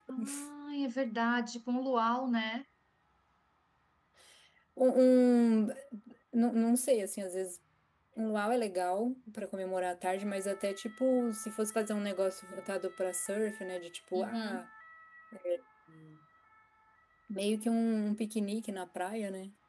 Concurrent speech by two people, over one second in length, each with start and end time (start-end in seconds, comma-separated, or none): none